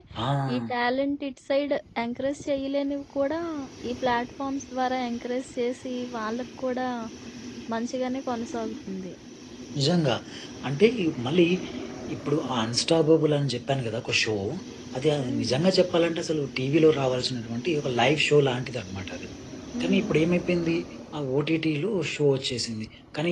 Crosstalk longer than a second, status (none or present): none